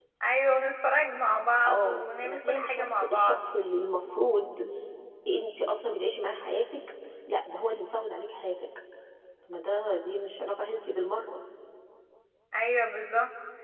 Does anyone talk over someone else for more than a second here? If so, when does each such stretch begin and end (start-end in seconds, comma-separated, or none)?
1.6-3.4